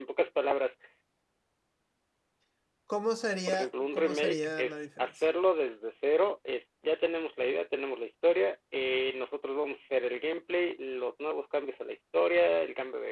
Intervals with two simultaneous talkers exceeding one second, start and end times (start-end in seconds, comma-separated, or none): 3.5-5.2